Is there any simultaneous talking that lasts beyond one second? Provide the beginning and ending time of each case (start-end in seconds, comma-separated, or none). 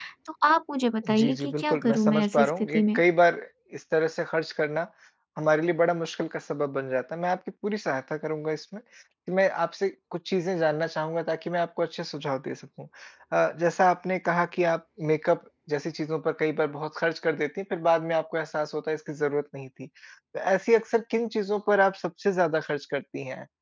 1.1-3.0